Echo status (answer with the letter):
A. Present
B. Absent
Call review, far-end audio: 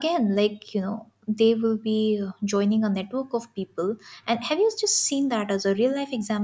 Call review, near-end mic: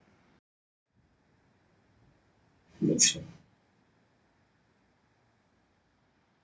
B